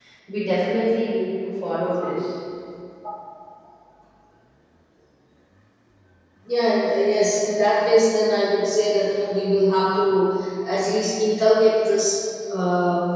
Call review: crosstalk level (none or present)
none